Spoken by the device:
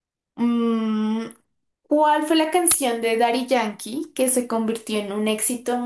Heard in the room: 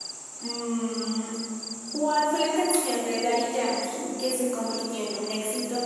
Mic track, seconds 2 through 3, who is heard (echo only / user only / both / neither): echo only